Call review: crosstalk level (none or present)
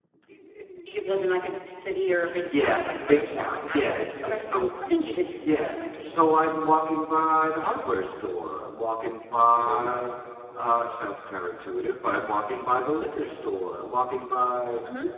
present